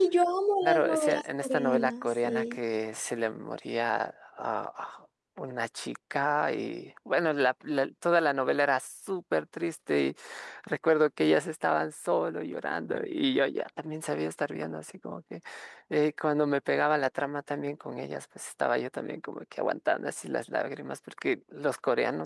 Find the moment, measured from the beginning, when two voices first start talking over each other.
0.6 s

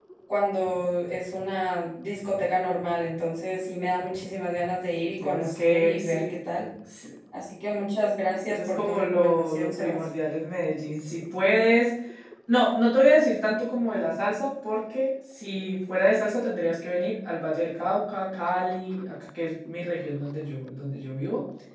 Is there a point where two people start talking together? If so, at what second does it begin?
5.0 s

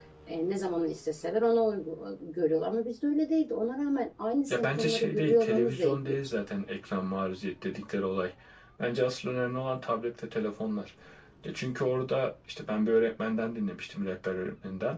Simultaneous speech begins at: 4.5 s

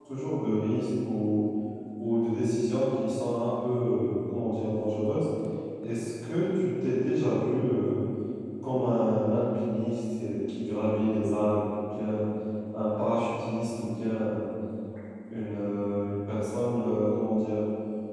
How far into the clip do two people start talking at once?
none

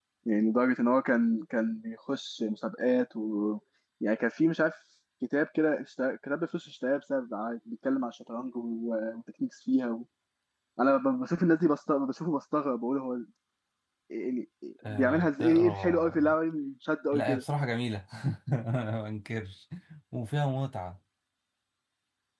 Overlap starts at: 14.9 s

